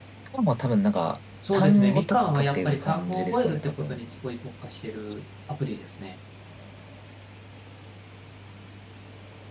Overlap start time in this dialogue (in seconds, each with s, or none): 1.4 s